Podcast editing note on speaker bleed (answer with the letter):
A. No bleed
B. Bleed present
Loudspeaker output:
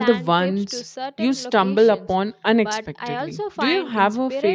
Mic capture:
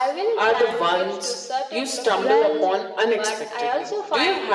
B